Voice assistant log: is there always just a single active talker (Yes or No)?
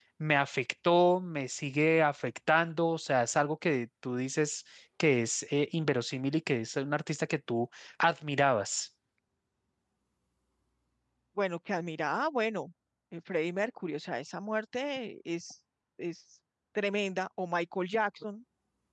Yes